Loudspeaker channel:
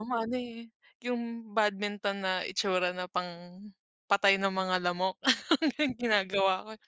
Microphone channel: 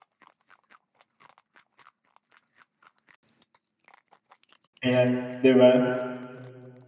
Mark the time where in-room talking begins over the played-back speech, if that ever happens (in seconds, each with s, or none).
4.8 s